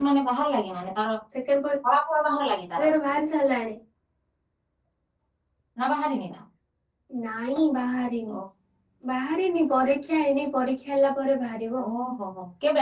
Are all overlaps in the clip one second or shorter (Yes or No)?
Yes